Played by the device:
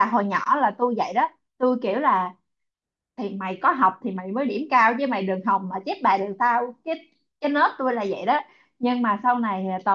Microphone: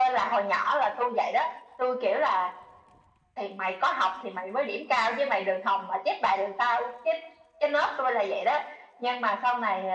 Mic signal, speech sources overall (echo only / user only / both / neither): echo only